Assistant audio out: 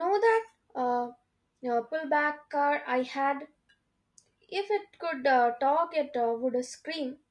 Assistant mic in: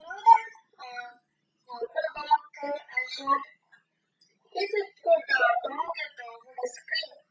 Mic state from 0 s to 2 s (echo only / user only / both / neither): echo only